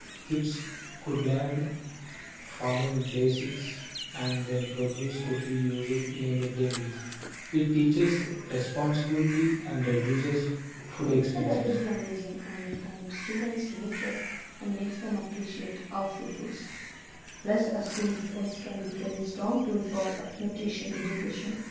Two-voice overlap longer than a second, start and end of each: none

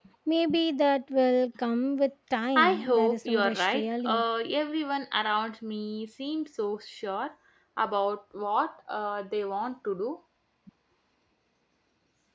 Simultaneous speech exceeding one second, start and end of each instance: 2.6-4.2

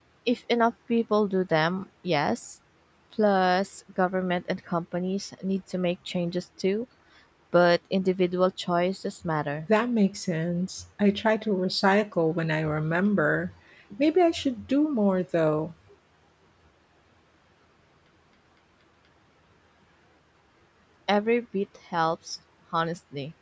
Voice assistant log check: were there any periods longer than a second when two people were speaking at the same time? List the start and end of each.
none

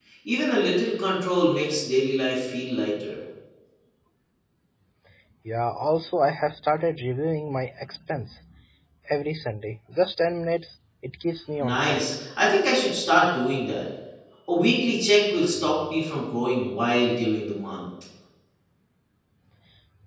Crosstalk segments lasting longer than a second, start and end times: none

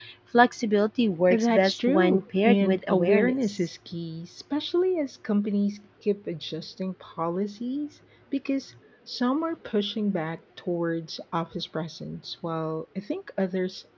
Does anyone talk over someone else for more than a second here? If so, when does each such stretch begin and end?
1.3-3.7

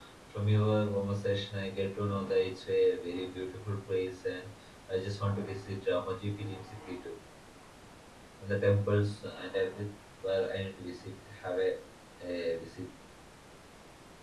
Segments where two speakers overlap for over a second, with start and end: none

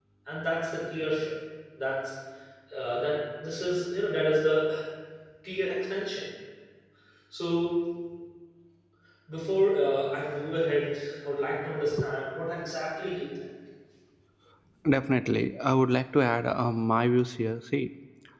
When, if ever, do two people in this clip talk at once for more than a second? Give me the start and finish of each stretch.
none

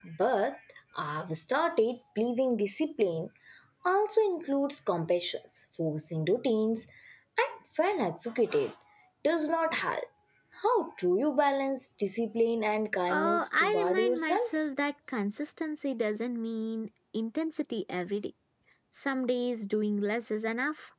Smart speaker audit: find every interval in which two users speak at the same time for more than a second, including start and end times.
13.1-14.5

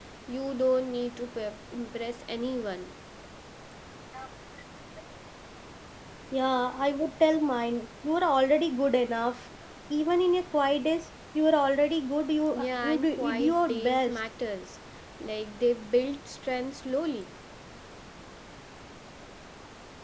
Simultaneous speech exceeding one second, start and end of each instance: 12.5-14.2

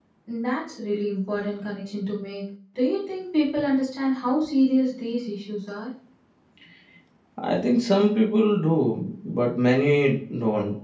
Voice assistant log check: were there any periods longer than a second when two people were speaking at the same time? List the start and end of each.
none

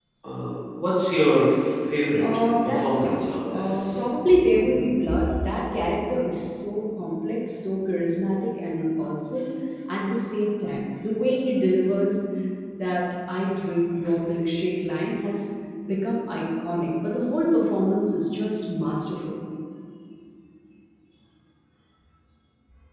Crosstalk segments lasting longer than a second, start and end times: 2.2-4.0

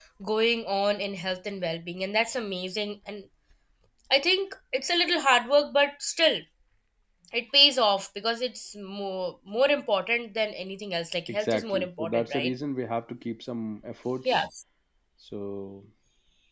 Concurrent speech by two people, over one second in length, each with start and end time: 11.3-12.5

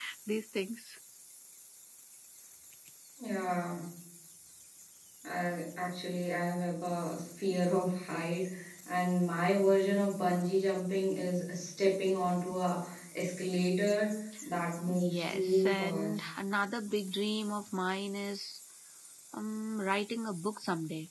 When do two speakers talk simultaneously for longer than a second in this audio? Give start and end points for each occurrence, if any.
14.9-16.1

